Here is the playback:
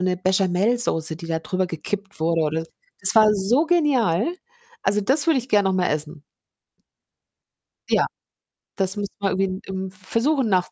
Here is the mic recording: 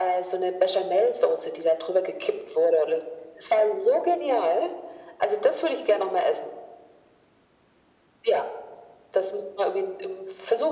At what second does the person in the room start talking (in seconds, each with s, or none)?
none